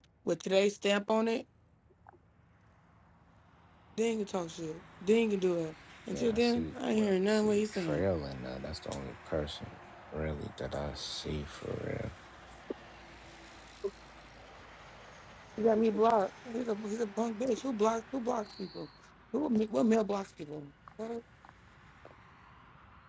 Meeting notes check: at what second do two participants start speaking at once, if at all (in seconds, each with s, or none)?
6.1 s